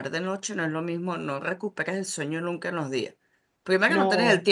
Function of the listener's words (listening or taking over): listening